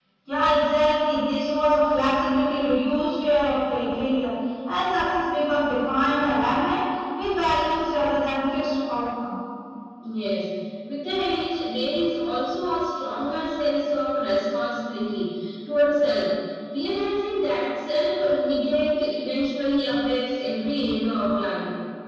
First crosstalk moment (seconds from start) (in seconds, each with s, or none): none